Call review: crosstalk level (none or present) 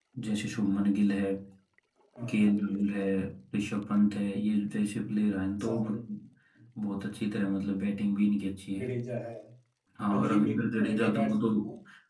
present